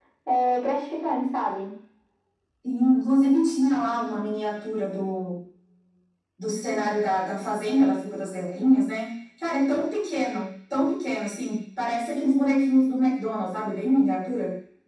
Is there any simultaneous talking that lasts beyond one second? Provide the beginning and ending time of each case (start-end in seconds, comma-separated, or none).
none